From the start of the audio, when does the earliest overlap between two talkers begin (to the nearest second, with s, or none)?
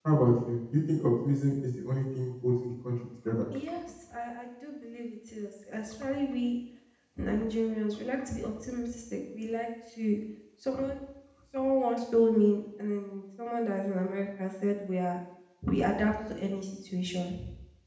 none